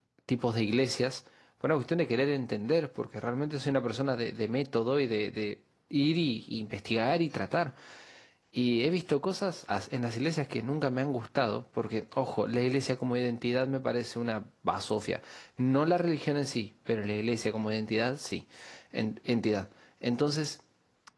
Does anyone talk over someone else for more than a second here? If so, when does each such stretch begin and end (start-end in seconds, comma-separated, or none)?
none